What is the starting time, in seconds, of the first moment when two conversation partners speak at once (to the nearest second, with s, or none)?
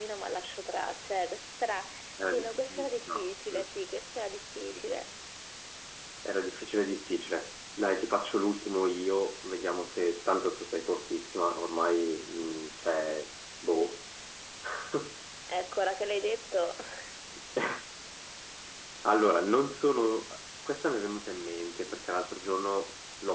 2 s